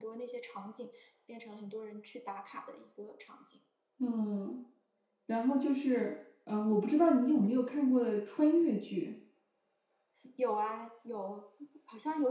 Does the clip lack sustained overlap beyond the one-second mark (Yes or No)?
Yes